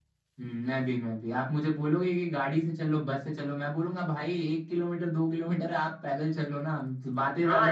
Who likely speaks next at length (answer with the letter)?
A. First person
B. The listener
B